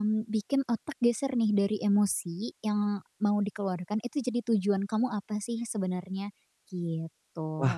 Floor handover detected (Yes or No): Yes